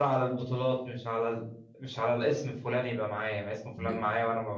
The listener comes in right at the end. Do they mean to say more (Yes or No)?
No